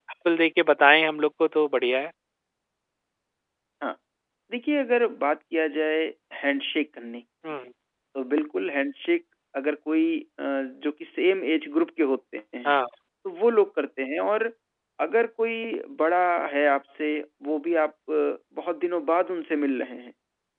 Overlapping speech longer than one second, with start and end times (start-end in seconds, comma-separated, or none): none